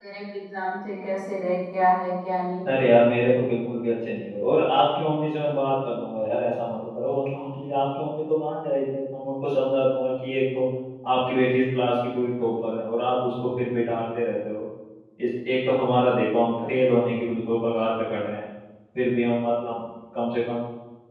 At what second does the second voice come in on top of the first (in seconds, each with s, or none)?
none